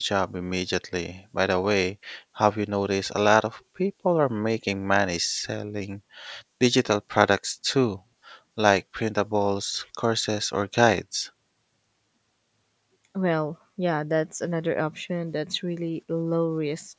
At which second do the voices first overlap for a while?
none

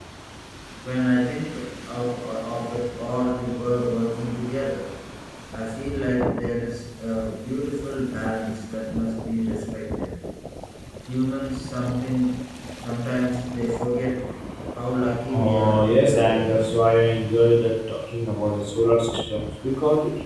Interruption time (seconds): 15.3 s

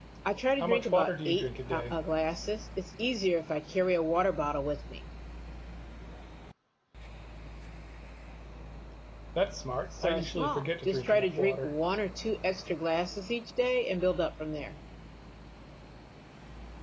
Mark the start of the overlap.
0.6 s

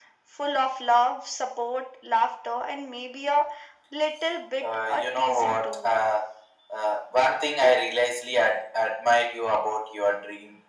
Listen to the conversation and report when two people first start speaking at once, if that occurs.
4.6 s

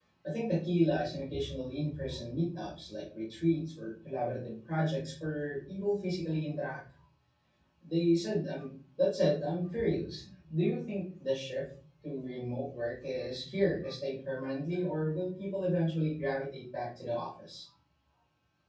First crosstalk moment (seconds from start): none

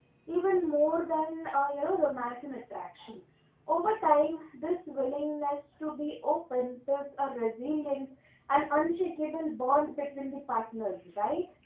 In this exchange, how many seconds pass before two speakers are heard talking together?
none

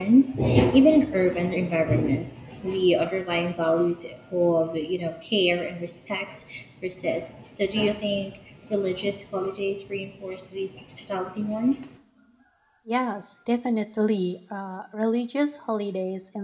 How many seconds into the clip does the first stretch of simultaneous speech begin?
none

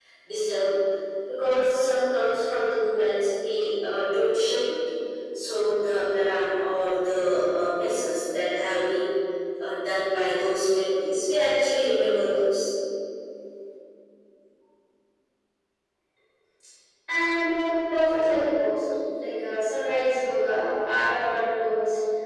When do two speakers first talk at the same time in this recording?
none

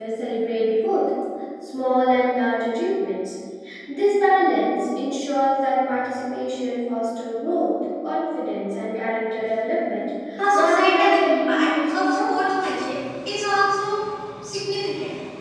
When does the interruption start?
10.5 s

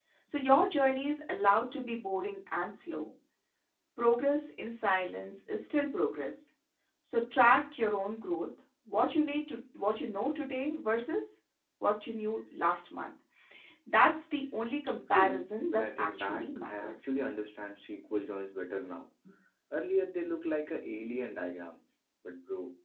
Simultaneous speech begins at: 15.1 s

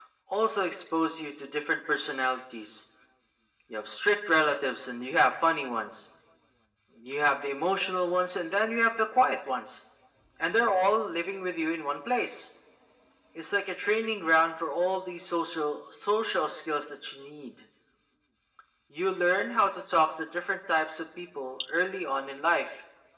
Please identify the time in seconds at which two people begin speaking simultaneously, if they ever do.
none

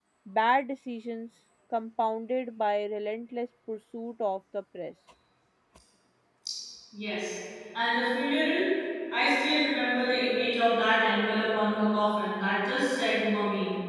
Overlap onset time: none

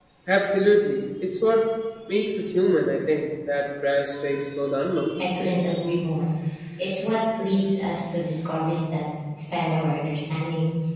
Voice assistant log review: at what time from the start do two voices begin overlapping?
none

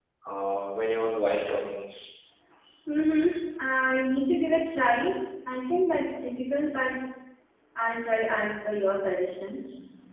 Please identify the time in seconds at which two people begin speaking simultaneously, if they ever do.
none

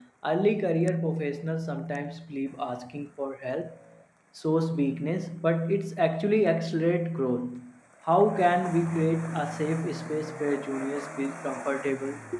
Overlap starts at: none

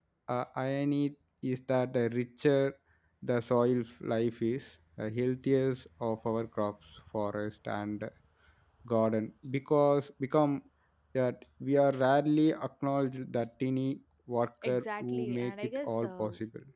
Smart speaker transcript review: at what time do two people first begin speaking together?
14.6 s

